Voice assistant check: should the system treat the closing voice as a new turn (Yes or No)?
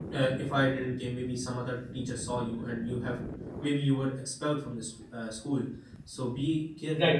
No